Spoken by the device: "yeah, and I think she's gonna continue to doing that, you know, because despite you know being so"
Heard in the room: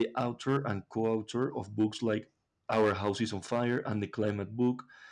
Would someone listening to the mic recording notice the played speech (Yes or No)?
No